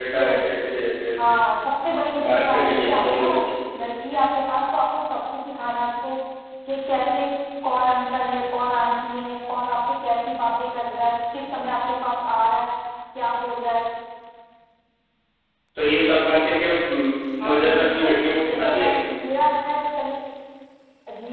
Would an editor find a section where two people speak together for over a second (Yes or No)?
Yes